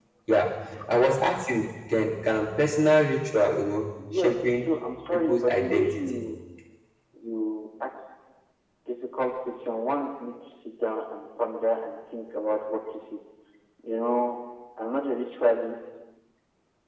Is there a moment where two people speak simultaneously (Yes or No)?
Yes